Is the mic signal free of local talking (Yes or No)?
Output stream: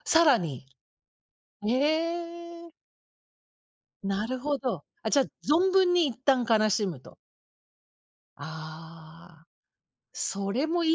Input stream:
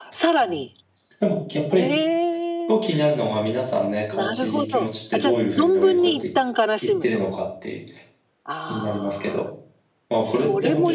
No